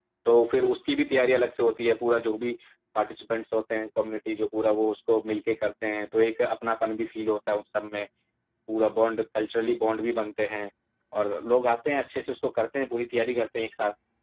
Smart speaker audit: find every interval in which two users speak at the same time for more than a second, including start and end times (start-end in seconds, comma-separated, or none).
none